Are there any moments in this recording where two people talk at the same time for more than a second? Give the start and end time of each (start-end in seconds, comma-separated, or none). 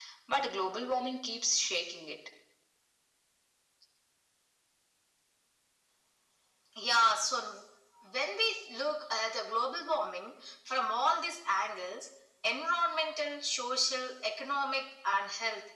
none